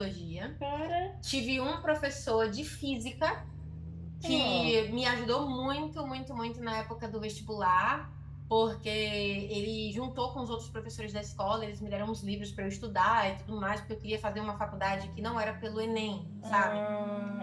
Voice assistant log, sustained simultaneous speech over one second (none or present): none